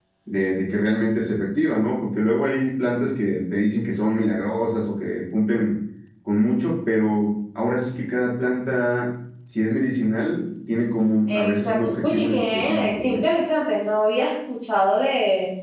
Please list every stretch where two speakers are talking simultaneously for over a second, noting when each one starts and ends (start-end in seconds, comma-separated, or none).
11.3-13.2